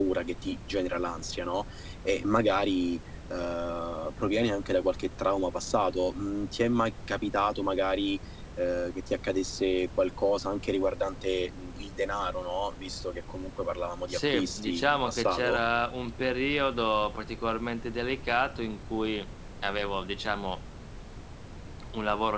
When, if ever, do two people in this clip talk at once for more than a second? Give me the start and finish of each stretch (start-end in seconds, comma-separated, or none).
14.1-15.6